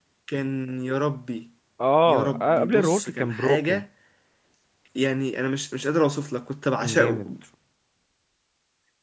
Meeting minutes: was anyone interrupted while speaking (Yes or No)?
Yes